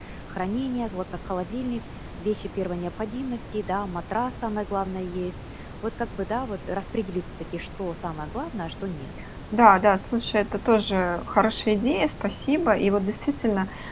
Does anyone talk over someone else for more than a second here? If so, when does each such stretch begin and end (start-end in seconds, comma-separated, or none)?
none